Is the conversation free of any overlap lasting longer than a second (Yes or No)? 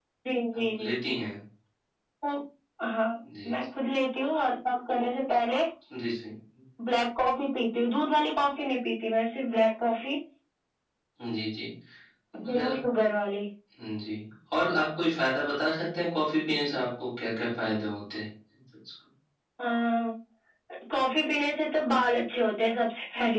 Yes